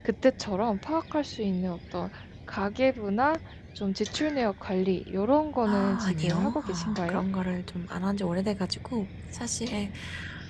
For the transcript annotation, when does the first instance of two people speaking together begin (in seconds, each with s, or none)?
5.7 s